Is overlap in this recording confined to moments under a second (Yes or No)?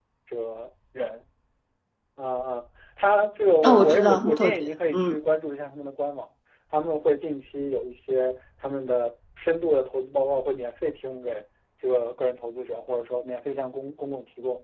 No